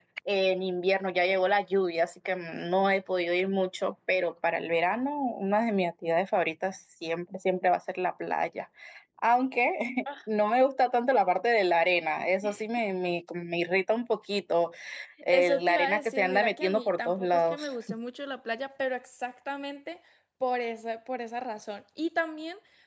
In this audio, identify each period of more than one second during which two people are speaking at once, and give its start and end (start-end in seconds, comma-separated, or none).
15.3-17.7